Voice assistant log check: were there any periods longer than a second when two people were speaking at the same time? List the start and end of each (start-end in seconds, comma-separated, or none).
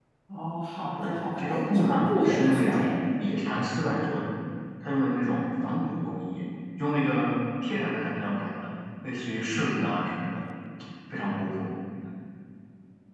1.0-2.9